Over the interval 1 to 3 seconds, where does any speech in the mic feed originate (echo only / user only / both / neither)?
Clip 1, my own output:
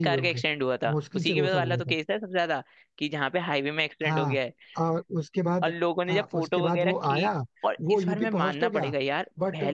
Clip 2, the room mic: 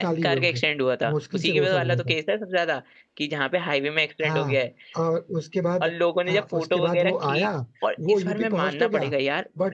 echo only